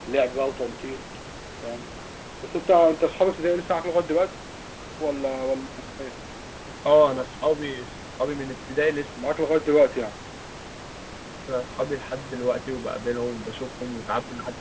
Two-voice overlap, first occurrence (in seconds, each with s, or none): none